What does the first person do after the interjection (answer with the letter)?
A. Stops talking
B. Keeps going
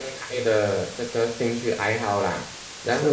A